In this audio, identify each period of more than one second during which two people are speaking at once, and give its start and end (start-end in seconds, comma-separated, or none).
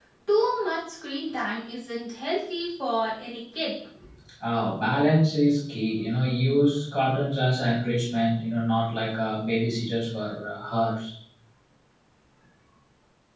none